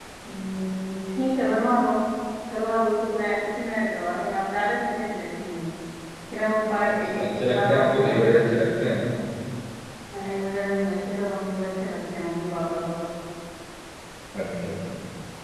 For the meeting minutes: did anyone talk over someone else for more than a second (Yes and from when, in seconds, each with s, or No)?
Yes, from 6.9 s